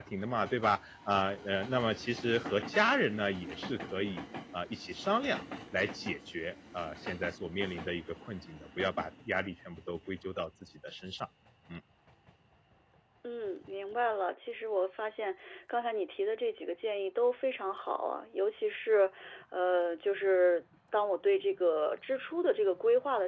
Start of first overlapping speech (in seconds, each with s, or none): none